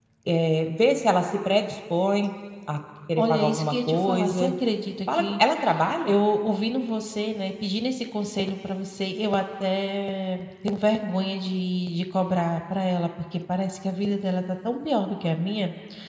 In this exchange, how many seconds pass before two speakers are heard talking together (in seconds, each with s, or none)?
3.2 s